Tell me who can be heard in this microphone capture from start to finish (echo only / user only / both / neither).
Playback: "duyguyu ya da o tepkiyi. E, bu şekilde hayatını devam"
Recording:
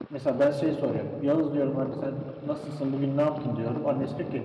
user only